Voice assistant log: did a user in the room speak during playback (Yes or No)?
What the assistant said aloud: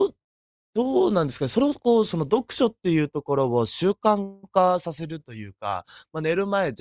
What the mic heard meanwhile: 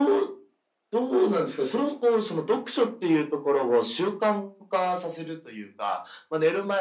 No